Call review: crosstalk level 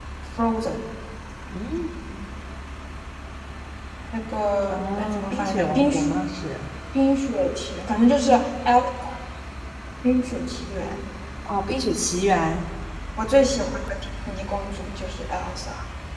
present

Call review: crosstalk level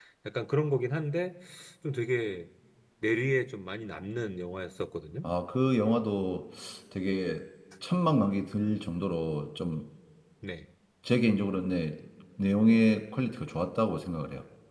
none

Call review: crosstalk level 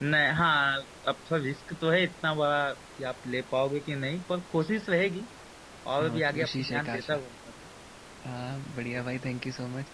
present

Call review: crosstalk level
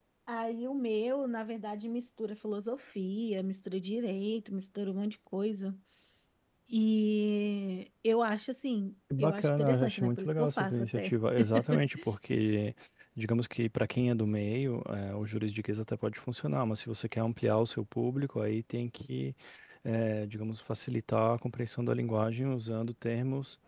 present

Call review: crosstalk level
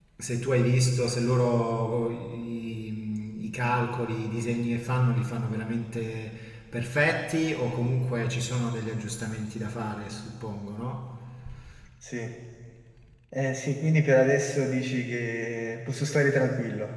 none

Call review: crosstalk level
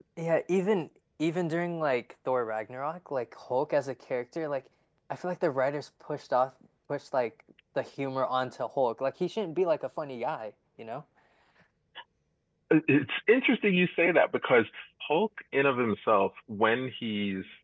none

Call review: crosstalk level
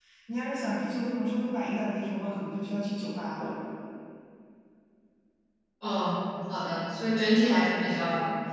none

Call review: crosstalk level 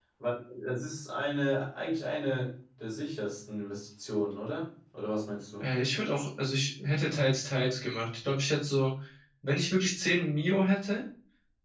none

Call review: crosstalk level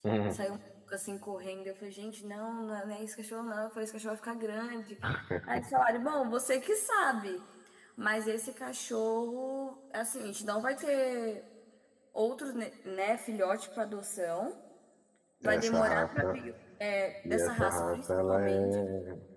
present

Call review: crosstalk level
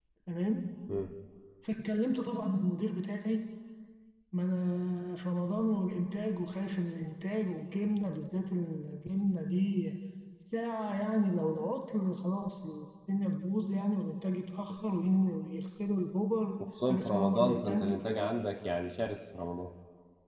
present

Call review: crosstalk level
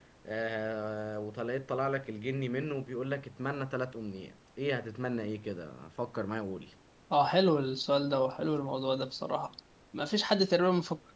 none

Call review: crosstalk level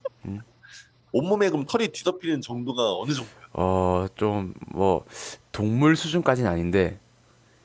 none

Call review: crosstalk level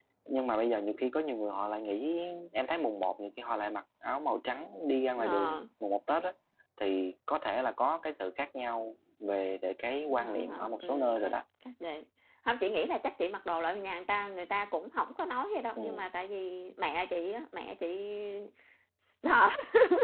present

